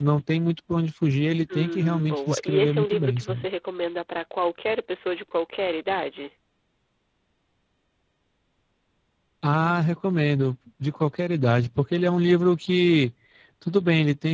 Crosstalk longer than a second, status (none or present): present